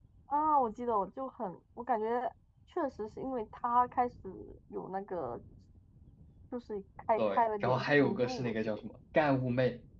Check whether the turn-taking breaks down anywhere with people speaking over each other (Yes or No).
Yes